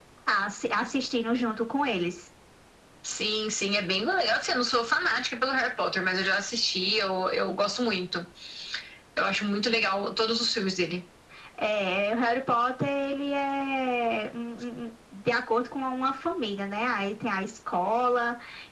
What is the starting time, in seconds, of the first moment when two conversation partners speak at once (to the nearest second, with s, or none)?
none